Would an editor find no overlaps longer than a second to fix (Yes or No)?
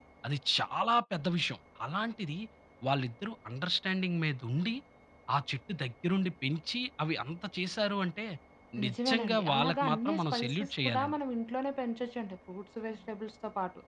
No